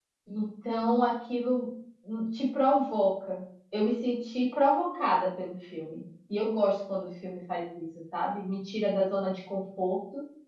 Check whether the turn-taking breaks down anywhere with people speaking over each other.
No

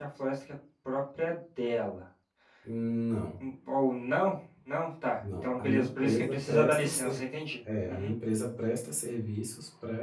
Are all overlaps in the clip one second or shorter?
No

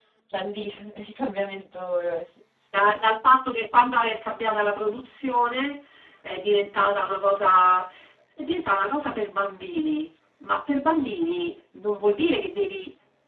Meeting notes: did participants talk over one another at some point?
No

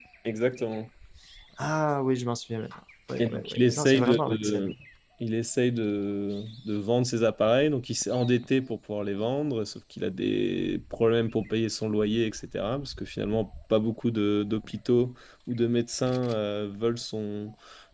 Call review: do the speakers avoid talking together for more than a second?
No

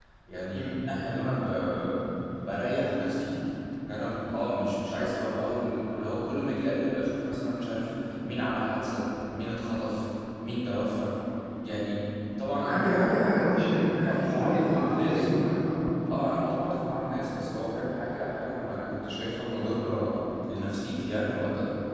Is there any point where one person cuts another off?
Yes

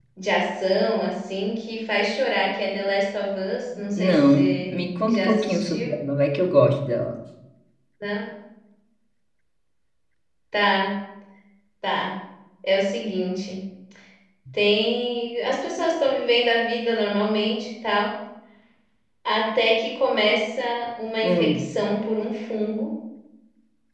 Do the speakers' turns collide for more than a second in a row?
Yes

